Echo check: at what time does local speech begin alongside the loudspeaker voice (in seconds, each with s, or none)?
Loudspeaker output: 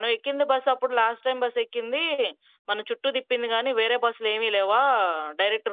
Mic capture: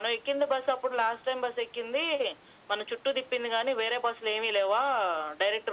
none